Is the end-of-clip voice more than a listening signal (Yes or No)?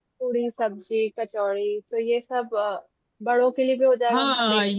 Yes